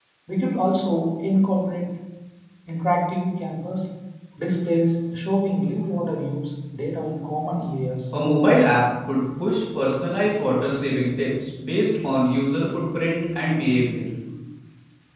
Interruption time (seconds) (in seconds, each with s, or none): none